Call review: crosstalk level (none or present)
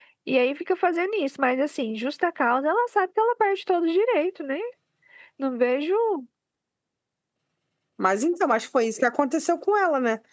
none